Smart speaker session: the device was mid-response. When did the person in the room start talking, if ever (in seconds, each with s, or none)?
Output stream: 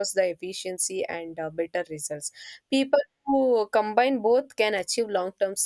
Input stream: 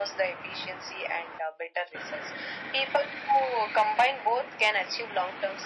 none